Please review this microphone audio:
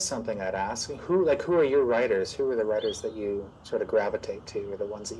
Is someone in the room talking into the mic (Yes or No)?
No